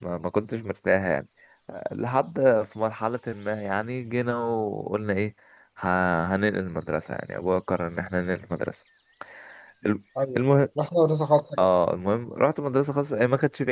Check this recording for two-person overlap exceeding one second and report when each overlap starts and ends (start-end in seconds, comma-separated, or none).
none